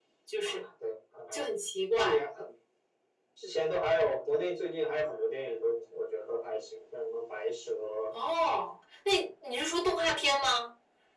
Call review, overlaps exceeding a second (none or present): none